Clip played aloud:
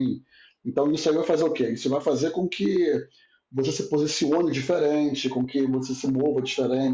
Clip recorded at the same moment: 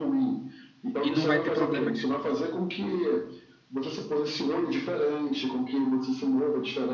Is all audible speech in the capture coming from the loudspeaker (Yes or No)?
No